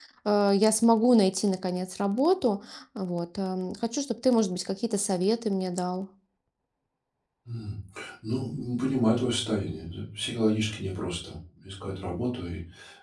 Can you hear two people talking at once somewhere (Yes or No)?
No